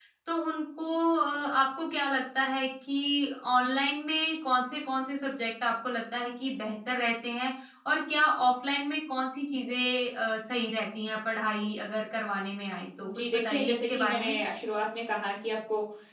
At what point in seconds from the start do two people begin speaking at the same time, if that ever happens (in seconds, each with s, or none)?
13.0 s